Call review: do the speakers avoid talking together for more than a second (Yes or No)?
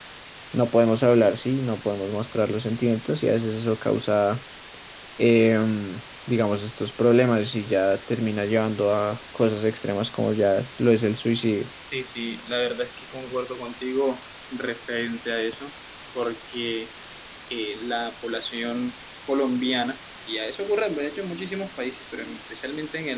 Yes